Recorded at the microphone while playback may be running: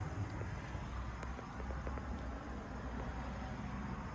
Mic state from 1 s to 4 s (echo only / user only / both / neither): neither